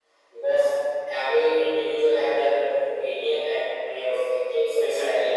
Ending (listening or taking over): taking over